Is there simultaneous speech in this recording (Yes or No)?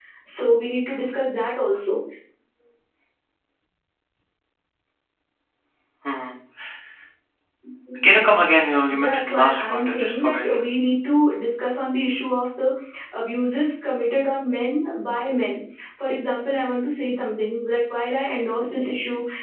Yes